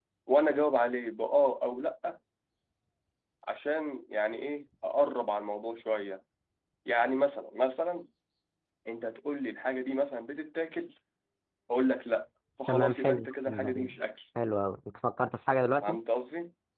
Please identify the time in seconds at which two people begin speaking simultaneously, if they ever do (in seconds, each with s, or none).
12.7 s